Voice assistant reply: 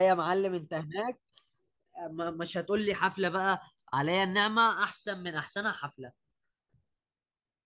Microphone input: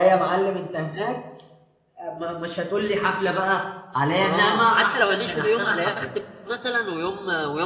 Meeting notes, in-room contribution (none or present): present